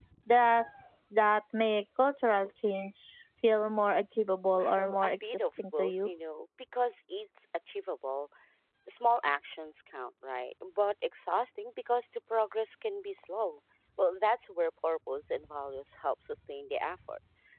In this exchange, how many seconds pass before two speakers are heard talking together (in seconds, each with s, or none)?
4.5 s